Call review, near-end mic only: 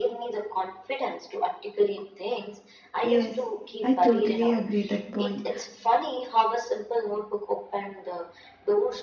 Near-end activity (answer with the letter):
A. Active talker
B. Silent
A